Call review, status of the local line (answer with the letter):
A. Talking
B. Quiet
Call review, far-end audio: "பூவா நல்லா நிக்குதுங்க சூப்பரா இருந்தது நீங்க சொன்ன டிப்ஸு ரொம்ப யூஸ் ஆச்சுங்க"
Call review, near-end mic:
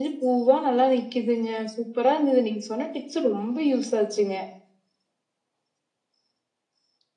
B